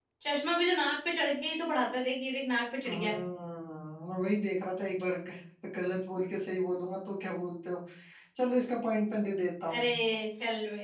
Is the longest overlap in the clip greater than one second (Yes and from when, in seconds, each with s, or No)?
No